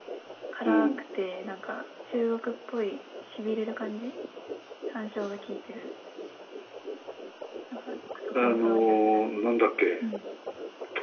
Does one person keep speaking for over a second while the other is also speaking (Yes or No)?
Yes